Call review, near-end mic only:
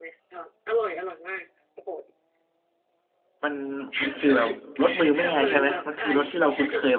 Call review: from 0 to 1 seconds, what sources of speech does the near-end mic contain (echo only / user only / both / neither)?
echo only